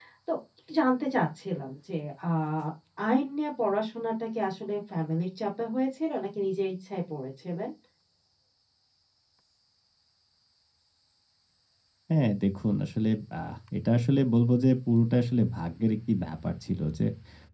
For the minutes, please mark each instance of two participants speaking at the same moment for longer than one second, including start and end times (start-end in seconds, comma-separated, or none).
none